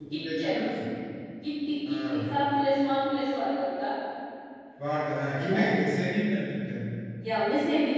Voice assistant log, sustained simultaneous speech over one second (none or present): none